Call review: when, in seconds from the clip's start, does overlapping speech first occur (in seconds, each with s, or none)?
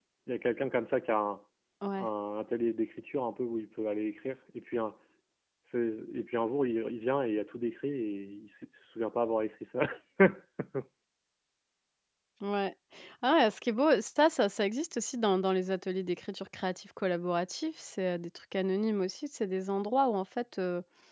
none